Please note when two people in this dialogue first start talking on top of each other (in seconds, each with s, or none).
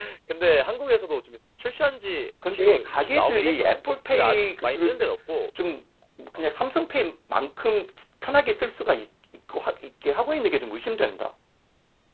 2.4 s